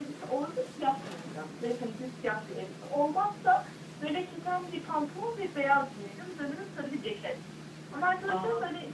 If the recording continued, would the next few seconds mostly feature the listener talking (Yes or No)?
No